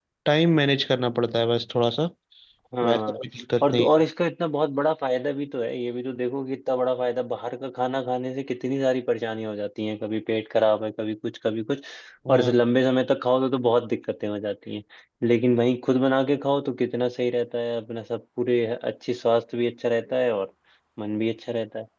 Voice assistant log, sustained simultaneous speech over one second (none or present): none